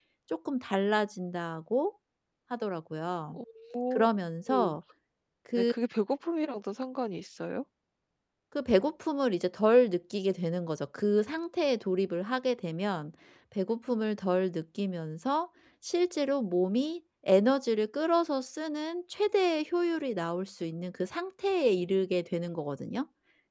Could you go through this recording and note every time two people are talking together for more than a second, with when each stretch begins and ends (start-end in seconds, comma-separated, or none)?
none